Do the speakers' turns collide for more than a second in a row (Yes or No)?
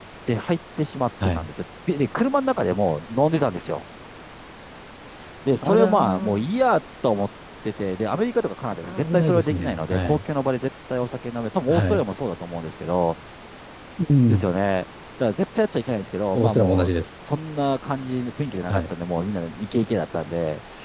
Yes